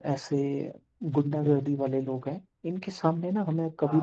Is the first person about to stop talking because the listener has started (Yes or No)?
No